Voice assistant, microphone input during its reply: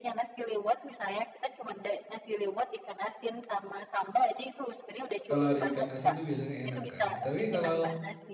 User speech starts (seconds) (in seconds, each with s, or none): 5.3 s